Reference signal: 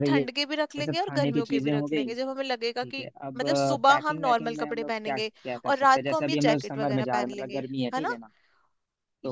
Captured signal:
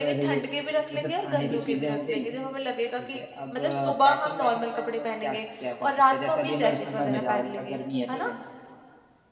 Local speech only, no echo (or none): none